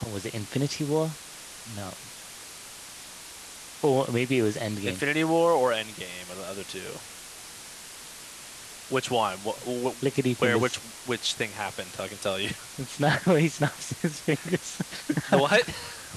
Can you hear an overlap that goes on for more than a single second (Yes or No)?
No